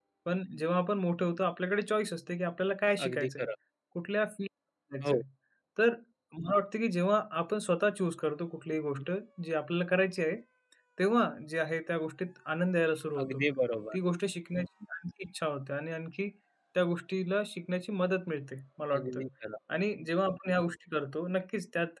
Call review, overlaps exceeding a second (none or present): none